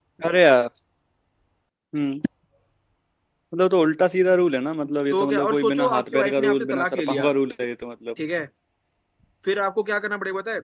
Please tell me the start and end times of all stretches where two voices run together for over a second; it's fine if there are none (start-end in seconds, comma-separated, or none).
5.1-7.3